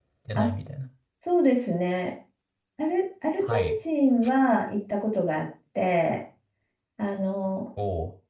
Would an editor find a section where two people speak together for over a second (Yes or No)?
No